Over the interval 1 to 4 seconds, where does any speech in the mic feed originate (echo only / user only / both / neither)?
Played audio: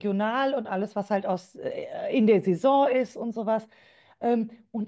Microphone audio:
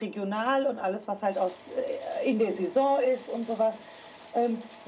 echo only